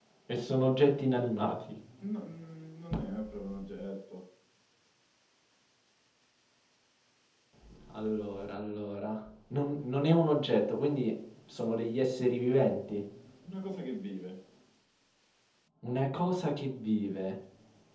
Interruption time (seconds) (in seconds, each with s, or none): none